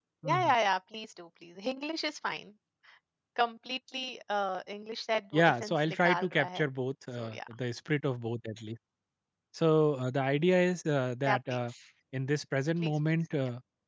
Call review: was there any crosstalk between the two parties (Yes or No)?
Yes